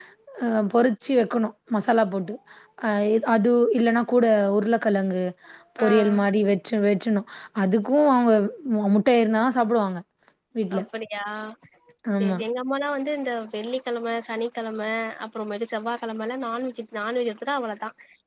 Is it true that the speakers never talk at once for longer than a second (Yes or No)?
Yes